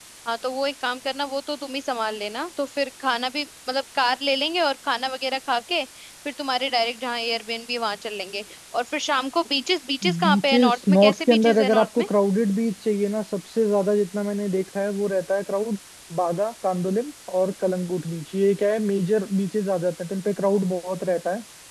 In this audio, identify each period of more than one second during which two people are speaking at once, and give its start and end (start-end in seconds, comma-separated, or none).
10.2-12.1